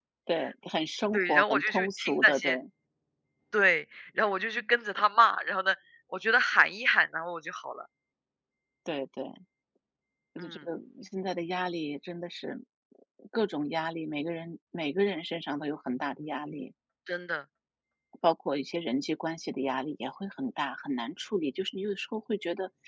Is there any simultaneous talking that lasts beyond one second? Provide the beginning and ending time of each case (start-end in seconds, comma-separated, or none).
1.1-2.6